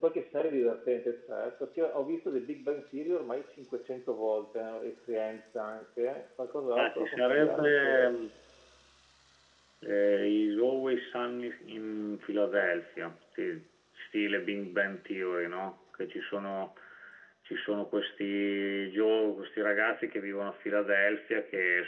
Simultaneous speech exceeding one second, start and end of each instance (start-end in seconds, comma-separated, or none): 6.8-8.1